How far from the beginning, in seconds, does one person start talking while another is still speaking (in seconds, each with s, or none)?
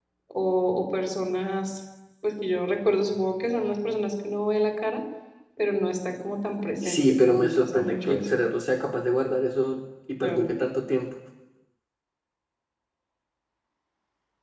6.8 s